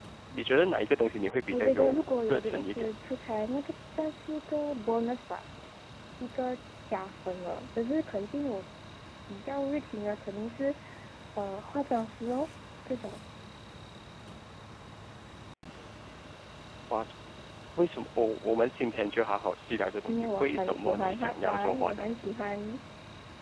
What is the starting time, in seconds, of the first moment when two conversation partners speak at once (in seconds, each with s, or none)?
1.5 s